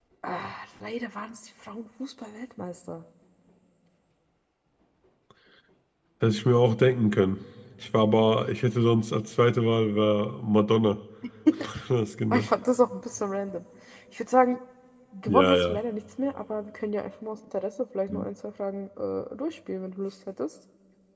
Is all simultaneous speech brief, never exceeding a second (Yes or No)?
Yes